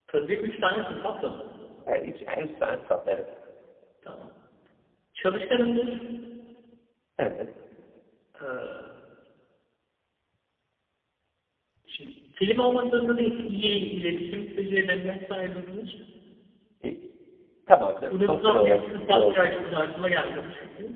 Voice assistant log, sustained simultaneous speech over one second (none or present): present